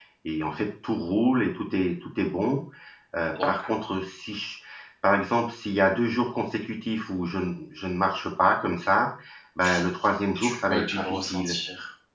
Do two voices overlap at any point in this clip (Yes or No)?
Yes